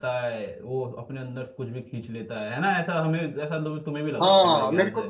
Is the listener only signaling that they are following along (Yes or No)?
No